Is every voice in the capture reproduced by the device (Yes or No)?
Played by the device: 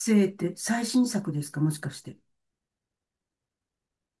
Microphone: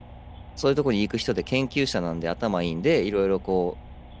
No